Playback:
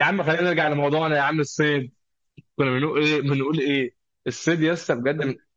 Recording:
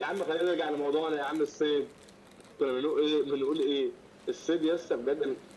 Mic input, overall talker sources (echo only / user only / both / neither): echo only